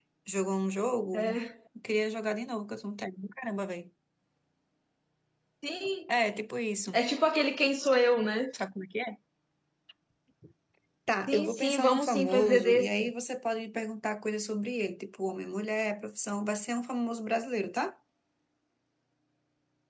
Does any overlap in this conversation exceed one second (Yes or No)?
Yes